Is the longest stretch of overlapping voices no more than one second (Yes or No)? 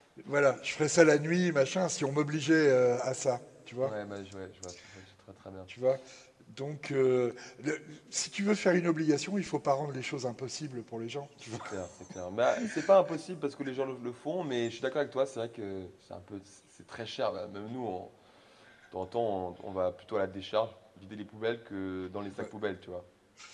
Yes